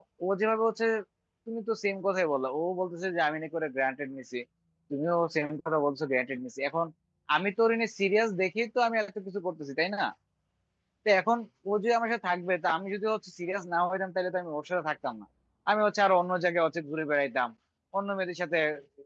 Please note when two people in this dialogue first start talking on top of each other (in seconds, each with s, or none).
none